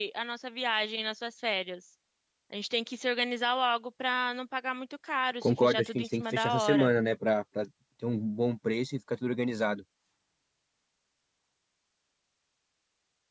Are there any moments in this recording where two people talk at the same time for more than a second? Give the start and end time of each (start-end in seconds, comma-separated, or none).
5.4-6.9